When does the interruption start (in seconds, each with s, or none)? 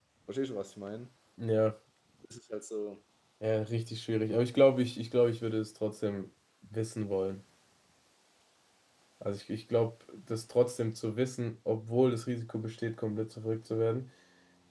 none